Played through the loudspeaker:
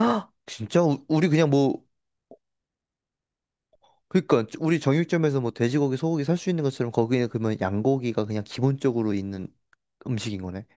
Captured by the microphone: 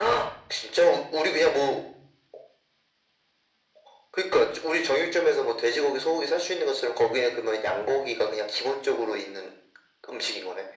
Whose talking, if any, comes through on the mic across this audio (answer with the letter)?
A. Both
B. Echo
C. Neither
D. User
B